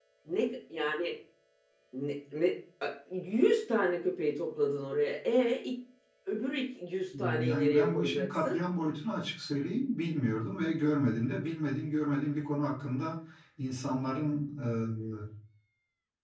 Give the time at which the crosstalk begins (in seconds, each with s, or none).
7.1 s